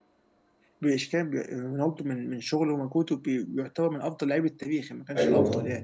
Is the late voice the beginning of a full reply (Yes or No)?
Yes